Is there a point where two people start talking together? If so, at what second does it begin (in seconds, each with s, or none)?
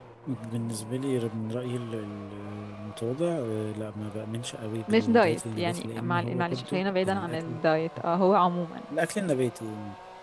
4.9 s